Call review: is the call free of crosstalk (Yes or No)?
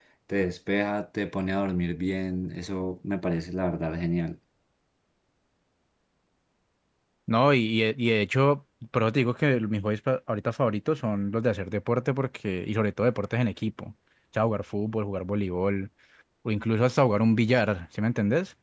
Yes